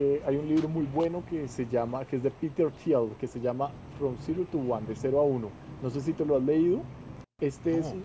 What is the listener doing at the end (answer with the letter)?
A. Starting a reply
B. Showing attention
B